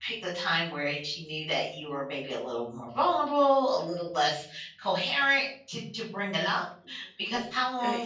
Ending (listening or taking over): listening